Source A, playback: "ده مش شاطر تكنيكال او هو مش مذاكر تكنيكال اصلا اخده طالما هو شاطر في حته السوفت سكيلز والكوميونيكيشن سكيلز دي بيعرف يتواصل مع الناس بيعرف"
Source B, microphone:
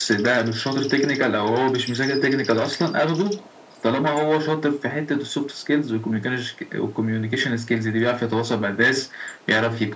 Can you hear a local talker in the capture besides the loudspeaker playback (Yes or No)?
No